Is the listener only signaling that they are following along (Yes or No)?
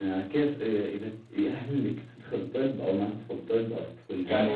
No